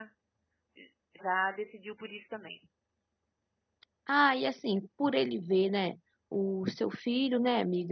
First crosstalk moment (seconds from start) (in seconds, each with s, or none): none